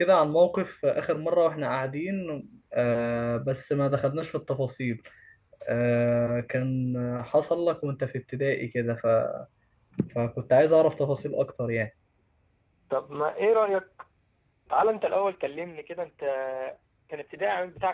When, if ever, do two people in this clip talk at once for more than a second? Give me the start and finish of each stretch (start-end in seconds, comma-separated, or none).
none